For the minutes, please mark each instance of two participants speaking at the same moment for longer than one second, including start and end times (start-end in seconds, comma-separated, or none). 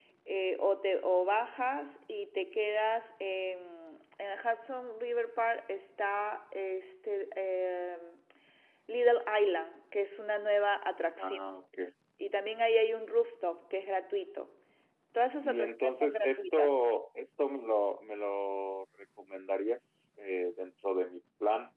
15.4-16.7